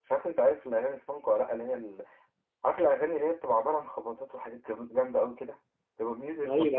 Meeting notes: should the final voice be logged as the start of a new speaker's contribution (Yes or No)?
Yes